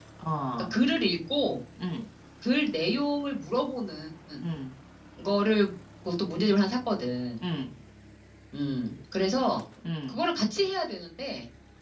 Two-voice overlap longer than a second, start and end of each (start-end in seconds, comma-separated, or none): none